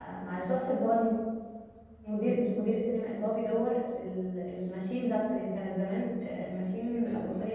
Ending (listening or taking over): listening